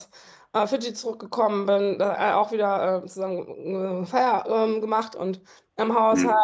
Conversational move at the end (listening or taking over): listening